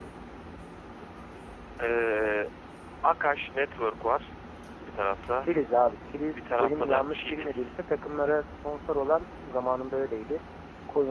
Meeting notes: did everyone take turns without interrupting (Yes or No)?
No